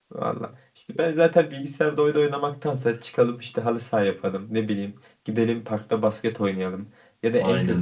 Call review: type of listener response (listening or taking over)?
listening